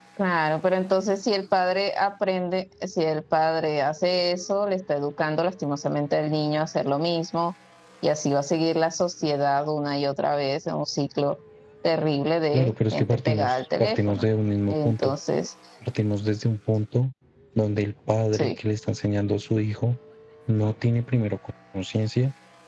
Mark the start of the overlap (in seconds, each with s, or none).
12.5 s